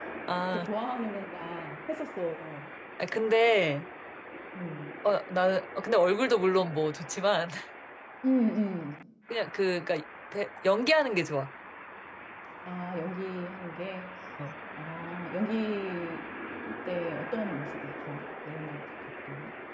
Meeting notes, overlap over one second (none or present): none